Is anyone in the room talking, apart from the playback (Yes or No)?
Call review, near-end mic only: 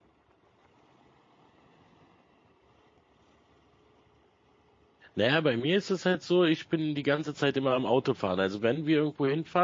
Yes